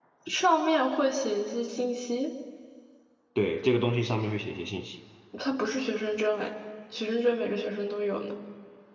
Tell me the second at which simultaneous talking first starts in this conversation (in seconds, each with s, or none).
none